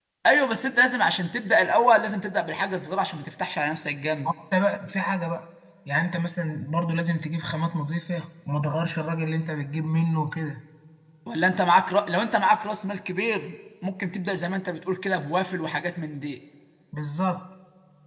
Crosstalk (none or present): none